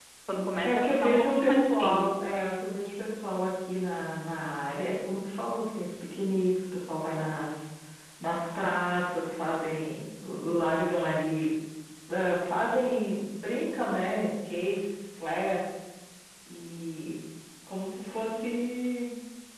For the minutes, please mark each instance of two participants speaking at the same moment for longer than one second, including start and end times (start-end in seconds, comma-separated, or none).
0.6-2.0